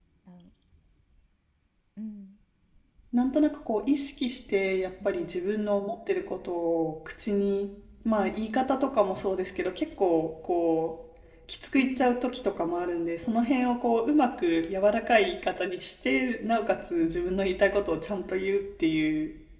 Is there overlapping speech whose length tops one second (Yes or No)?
No